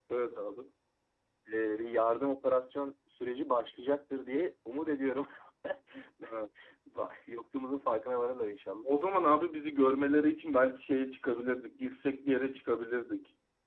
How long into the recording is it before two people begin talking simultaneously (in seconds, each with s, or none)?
none